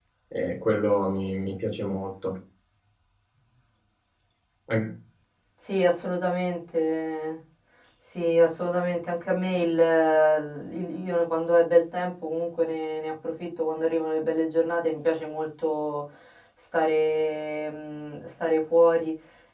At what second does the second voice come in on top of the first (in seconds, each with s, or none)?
none